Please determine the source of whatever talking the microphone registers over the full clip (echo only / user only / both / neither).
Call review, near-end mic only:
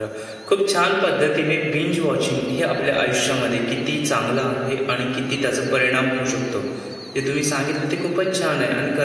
user only